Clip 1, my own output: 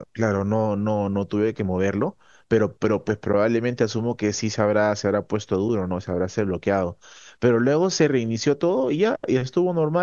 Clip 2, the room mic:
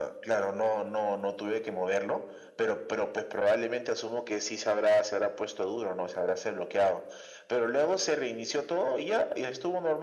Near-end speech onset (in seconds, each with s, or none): none